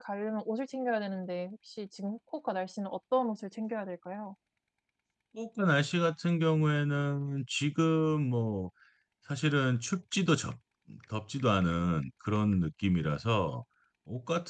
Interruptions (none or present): none